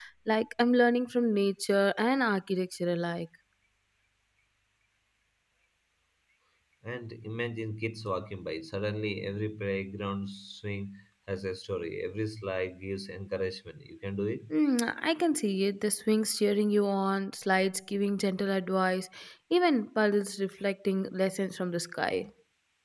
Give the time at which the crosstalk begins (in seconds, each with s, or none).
none